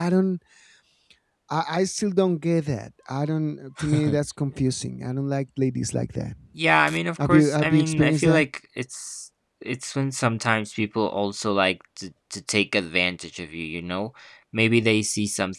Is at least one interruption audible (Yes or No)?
Yes